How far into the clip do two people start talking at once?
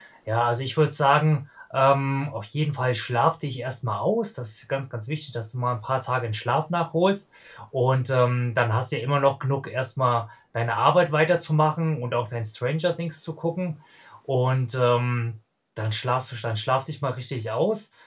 none

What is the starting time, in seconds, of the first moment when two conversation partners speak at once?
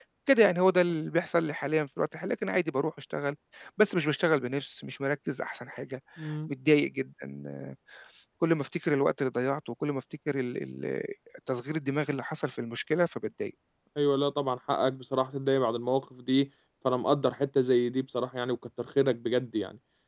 none

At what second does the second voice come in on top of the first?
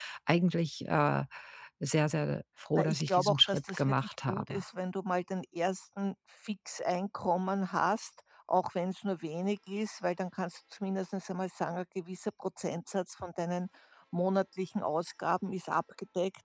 2.8 s

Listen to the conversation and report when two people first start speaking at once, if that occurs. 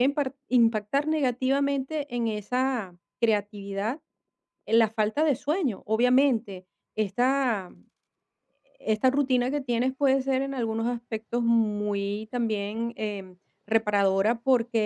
none

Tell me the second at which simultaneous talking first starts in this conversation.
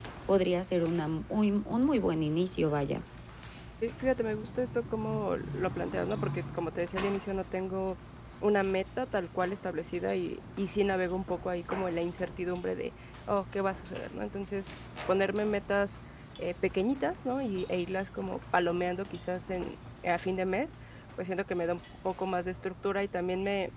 none

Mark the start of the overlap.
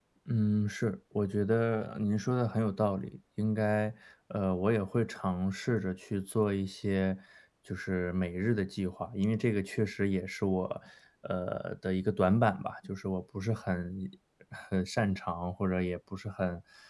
none

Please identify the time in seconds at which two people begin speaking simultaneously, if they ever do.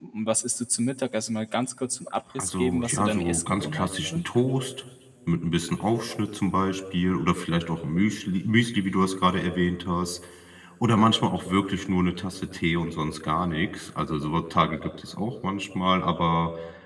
2.4 s

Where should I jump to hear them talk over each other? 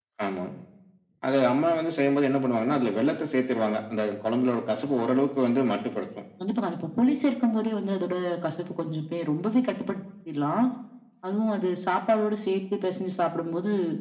none

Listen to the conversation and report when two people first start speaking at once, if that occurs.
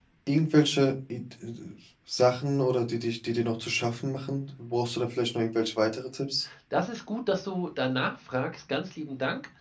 none

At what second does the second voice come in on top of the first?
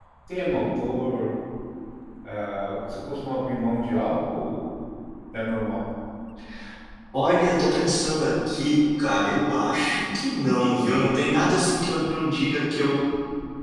none

